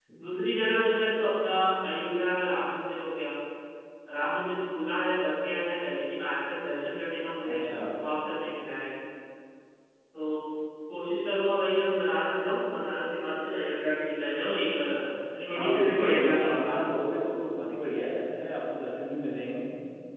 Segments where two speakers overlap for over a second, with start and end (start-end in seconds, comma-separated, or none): 15.6-16.9